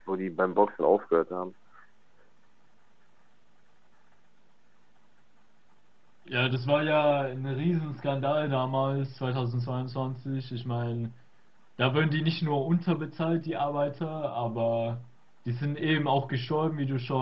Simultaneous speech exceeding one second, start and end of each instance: none

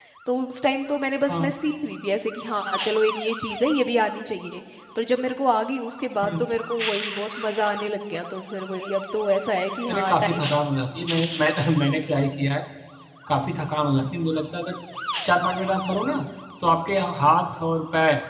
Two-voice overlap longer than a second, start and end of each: none

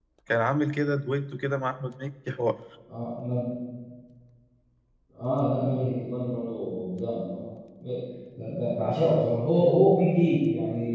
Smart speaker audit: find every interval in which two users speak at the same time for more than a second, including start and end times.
none

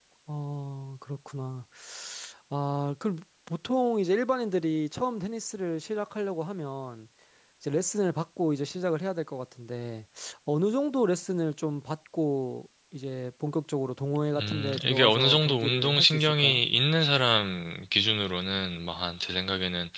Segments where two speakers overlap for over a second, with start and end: 14.4-16.6

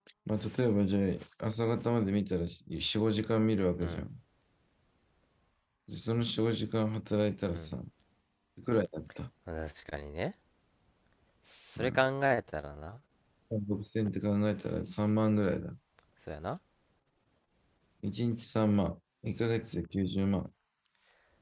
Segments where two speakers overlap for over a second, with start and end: none

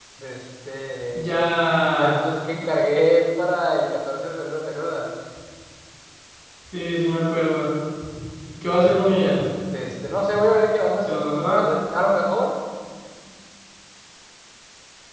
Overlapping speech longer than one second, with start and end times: none

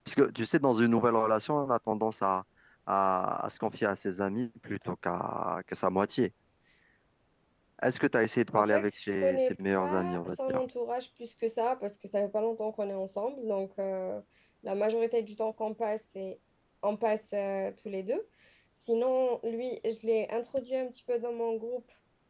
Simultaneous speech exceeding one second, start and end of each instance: 8.6-10.6

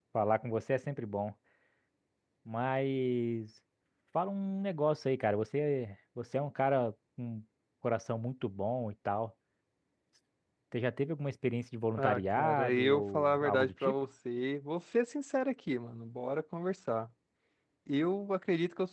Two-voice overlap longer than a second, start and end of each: 12.0-13.9

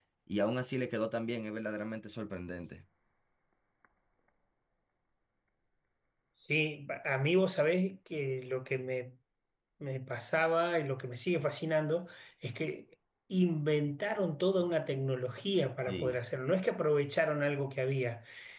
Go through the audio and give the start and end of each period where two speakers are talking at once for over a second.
none

